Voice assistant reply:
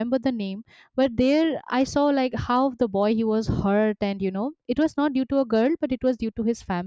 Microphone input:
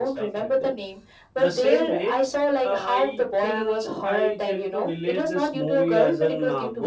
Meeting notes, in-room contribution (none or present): present